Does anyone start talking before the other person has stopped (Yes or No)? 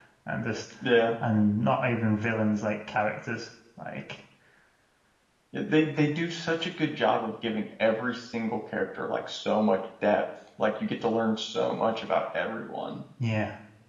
No